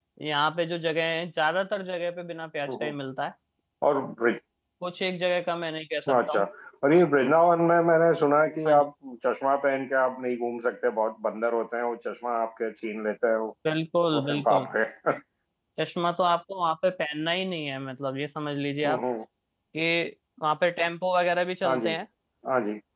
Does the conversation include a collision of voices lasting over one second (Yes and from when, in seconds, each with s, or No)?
No